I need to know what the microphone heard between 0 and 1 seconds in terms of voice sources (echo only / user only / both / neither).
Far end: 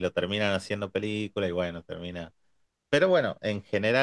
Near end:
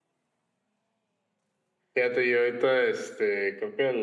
neither